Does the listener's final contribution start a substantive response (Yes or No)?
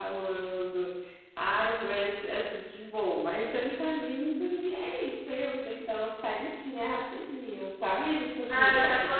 Yes